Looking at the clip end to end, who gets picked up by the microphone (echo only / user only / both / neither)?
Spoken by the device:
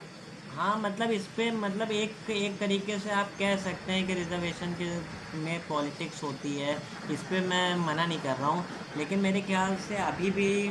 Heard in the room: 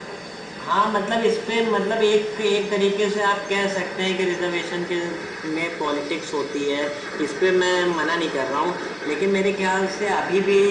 echo only